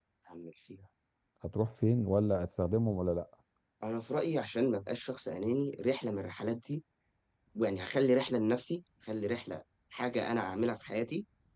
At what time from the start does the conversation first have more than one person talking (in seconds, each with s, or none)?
none